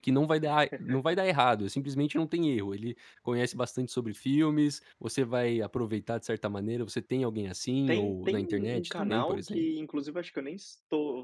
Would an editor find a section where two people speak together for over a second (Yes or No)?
Yes